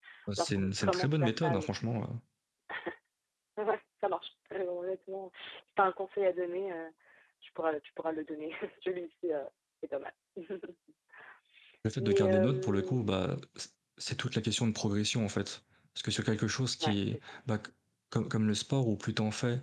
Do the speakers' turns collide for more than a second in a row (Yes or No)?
Yes